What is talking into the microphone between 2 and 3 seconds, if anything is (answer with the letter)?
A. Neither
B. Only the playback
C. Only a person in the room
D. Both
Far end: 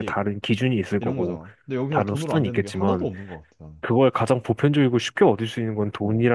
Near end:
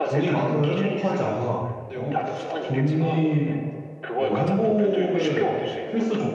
D